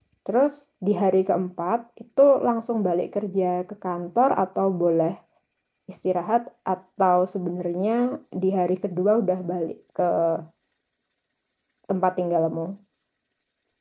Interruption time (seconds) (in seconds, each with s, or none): none